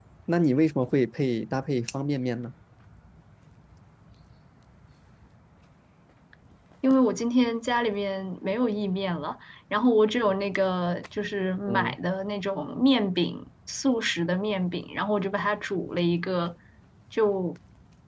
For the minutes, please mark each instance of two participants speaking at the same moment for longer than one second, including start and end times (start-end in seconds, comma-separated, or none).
none